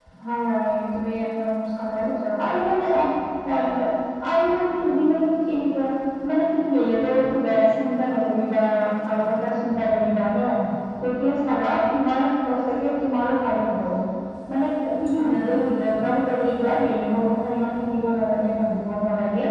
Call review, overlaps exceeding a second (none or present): none